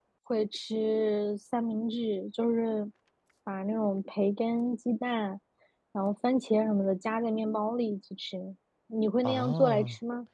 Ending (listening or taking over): taking over